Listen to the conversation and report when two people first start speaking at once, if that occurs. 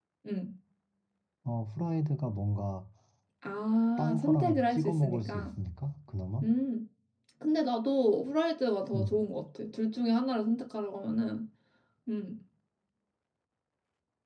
4 s

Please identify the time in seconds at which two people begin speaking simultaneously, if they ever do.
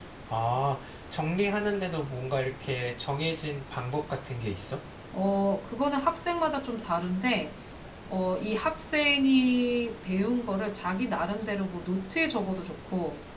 none

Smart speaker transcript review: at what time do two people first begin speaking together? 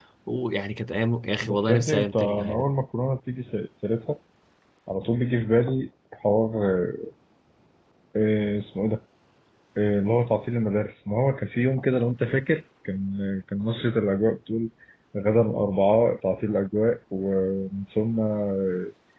1 s

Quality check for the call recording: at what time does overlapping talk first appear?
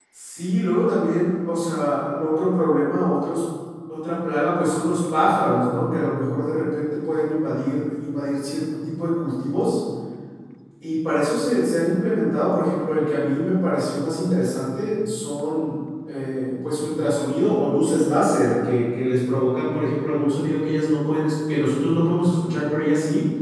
none

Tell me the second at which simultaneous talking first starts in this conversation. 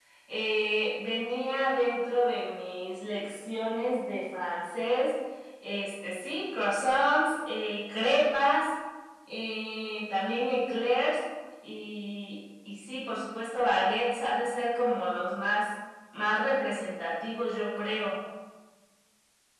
none

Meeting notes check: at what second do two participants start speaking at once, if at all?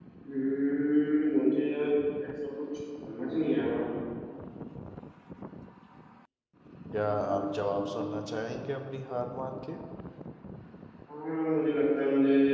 7 s

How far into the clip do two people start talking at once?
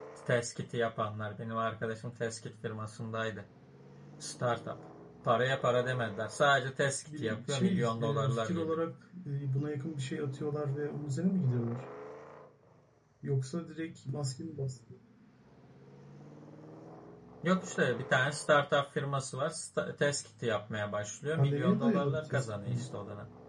7 s

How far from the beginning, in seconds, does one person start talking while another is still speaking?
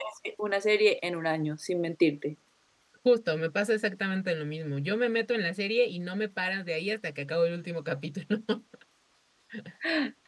none

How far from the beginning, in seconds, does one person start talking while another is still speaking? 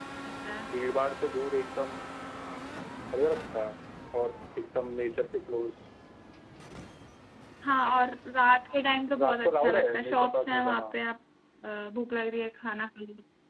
9 s

